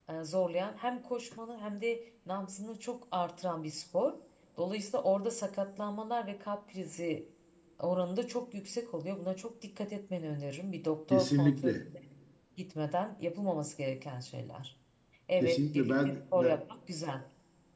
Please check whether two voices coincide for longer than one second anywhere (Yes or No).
Yes